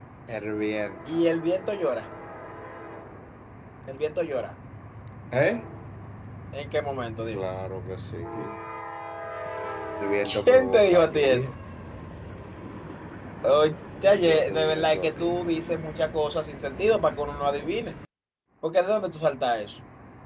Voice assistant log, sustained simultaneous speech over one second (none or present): present